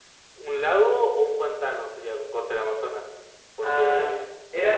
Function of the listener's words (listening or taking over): taking over